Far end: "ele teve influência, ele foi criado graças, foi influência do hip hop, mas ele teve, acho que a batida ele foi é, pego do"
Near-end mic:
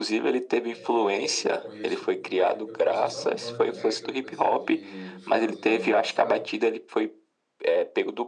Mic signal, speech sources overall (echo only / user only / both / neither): both